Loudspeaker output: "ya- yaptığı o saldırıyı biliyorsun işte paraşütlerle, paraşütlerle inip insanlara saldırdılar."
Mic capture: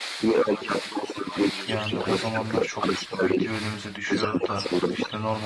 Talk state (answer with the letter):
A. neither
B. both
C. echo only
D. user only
B